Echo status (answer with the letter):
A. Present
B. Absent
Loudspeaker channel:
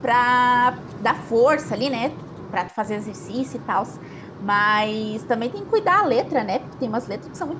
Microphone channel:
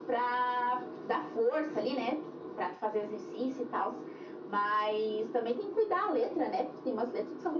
A